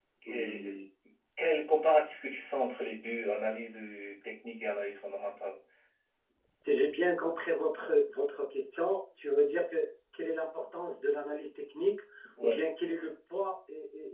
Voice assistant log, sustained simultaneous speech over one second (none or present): none